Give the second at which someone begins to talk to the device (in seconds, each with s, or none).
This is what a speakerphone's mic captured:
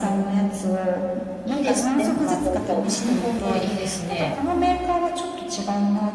1.4 s